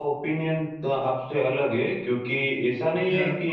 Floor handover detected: No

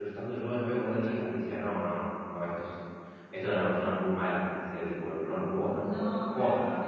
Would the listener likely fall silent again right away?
No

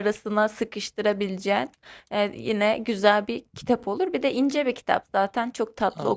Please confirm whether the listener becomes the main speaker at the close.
Yes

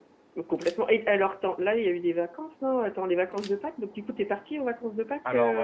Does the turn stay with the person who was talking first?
No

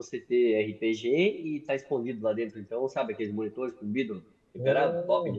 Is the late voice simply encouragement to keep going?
No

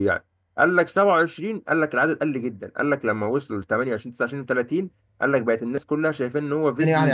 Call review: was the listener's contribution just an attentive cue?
No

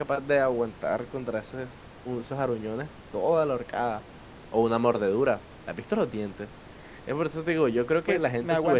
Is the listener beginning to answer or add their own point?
Yes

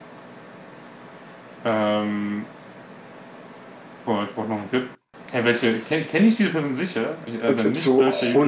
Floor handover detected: Yes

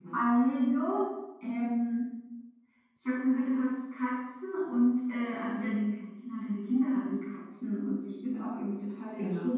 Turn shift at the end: No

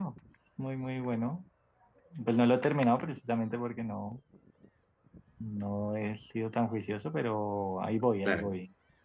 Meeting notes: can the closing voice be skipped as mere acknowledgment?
Yes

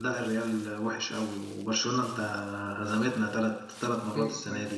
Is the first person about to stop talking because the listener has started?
No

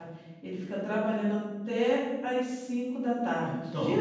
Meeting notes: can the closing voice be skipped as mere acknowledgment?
No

